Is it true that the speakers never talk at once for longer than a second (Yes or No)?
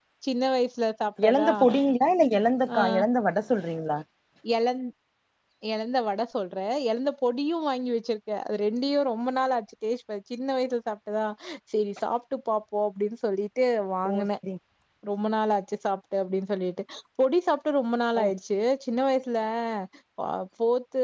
Yes